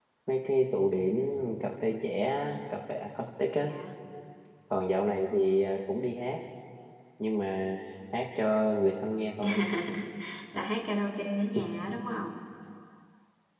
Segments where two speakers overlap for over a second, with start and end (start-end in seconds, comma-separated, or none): none